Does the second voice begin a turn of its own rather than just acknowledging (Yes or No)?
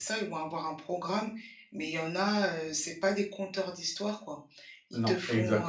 No